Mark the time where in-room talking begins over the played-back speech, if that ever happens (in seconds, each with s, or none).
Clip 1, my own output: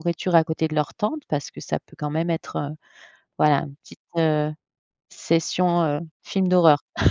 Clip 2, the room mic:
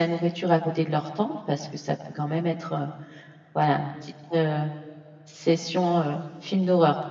none